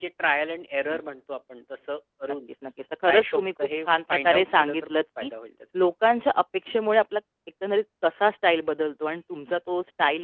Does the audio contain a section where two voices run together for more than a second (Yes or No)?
Yes